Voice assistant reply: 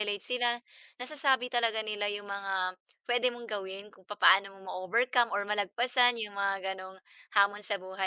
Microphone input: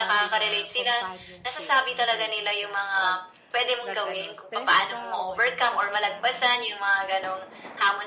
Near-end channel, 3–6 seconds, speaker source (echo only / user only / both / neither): both